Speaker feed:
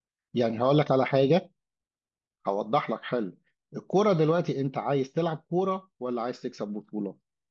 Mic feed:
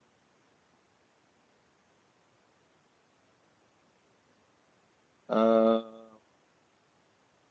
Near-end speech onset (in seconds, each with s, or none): 5.3 s